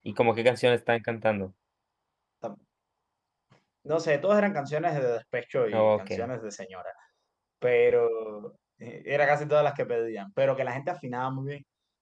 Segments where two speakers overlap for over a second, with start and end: none

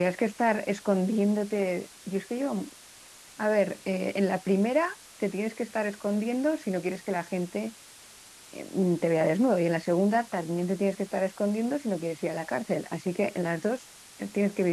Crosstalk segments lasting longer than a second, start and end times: none

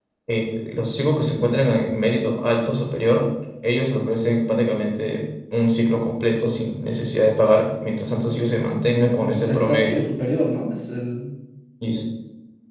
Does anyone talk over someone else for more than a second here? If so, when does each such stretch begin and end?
8.8-10.0

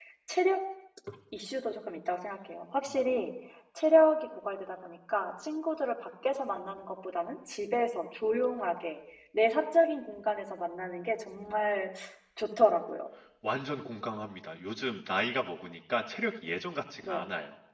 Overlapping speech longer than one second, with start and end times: none

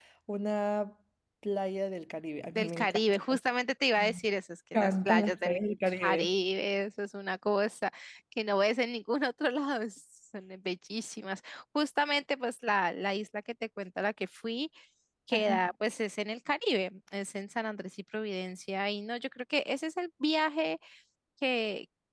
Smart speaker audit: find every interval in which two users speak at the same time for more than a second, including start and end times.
4.7-6.3

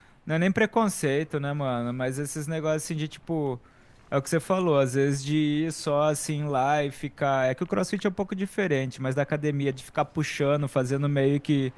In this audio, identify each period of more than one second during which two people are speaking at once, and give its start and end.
none

